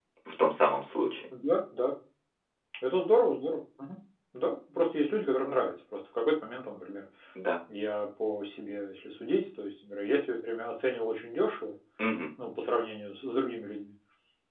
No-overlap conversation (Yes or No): Yes